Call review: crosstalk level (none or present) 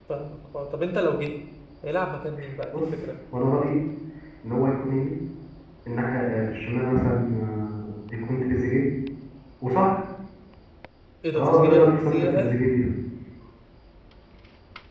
present